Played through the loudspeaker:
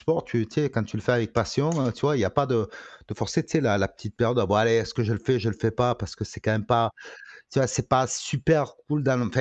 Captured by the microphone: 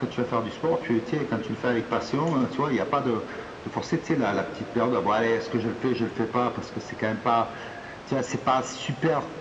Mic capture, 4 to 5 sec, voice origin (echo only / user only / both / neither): echo only